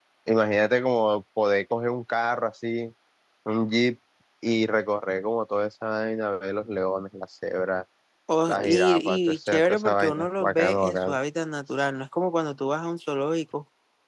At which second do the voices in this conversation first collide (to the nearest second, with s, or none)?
8 s